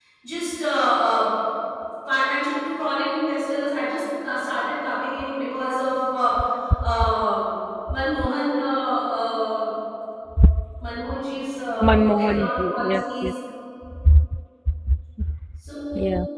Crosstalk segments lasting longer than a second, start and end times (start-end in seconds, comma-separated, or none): 12.0-13.3